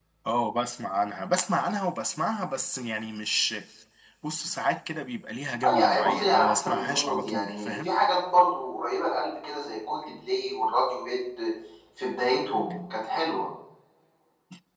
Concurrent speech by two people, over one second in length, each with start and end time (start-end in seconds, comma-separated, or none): 5.7-7.9